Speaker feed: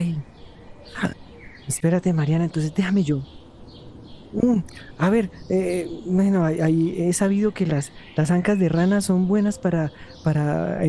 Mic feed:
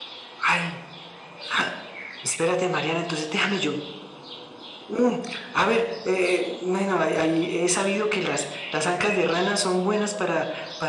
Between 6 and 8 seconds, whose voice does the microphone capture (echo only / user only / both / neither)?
echo only